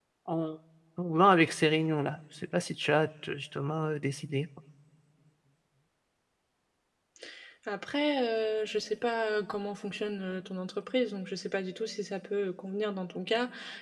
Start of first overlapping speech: none

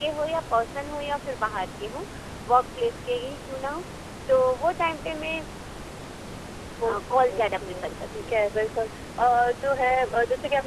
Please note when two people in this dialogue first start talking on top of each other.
6.8 s

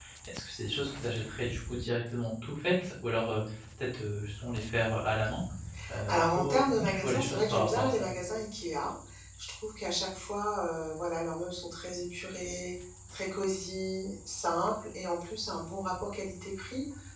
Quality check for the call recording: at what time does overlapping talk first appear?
6.1 s

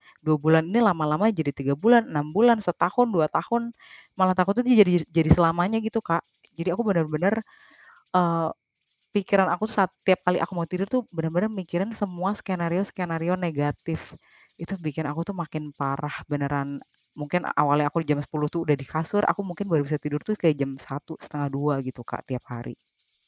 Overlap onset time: none

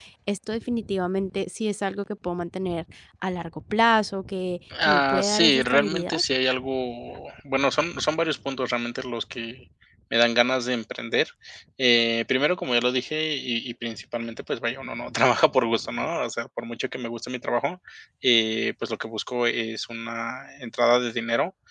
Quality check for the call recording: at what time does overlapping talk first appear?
4.7 s

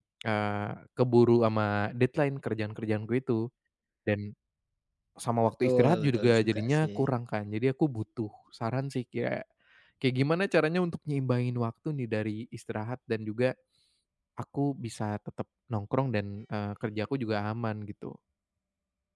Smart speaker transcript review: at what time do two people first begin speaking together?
5.6 s

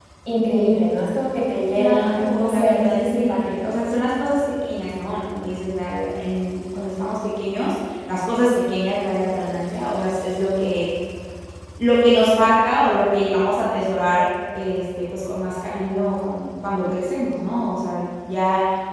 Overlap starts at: 1.7 s

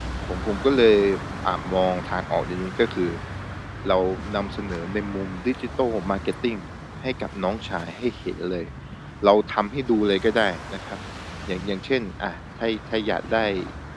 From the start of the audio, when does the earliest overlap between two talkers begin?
none

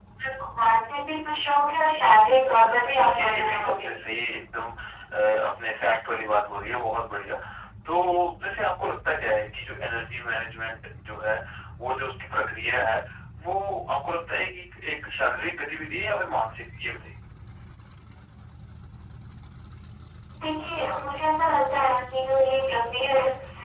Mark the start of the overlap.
2.4 s

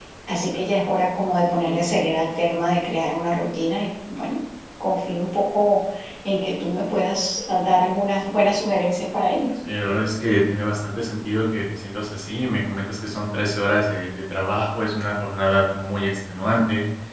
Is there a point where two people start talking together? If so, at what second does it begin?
none

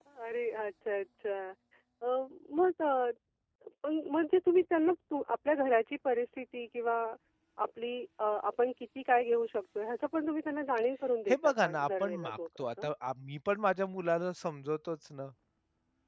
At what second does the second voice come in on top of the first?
11.3 s

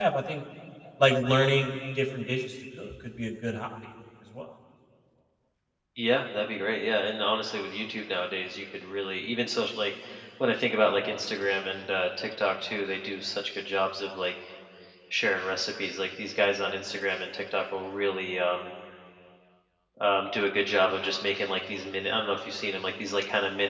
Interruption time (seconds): none

